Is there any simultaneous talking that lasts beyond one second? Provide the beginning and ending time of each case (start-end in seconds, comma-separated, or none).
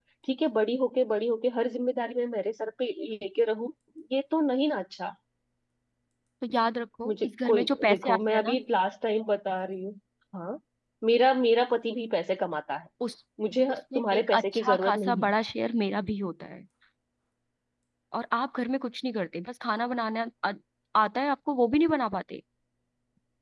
7.0-8.6, 13.7-15.3